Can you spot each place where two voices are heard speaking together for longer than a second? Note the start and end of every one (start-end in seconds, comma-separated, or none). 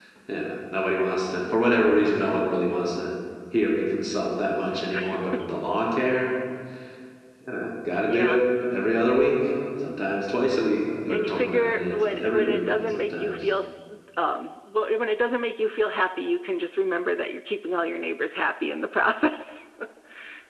11.1-13.4